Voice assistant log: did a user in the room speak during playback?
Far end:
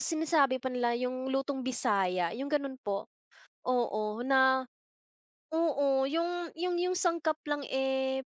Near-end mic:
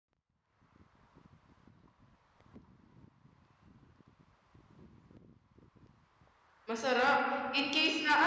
Yes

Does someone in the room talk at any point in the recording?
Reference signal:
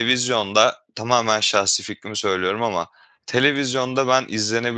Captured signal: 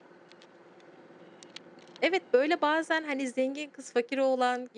Yes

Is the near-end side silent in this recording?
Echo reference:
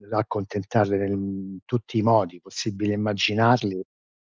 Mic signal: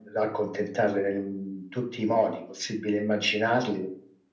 Yes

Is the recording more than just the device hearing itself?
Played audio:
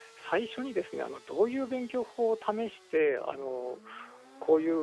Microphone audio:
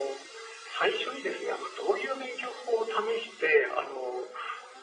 No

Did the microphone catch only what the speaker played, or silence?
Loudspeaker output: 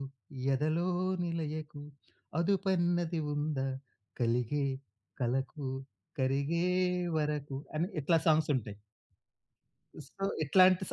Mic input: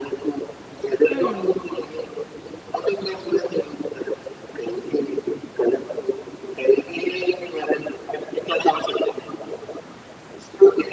No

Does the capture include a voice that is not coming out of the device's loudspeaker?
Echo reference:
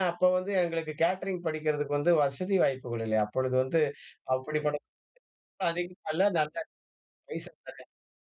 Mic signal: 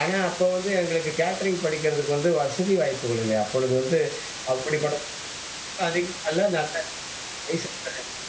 No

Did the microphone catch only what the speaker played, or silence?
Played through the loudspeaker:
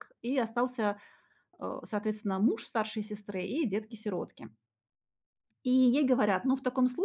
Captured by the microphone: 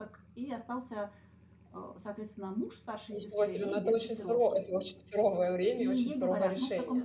No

